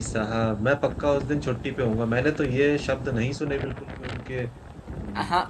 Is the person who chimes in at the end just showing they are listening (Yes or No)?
No